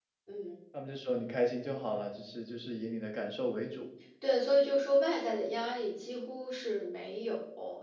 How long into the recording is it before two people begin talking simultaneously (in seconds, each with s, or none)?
none